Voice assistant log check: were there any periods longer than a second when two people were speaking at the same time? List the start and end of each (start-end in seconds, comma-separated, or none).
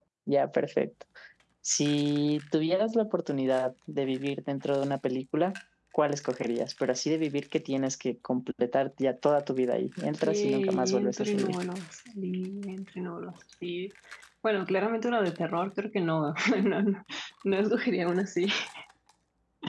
10.2-11.6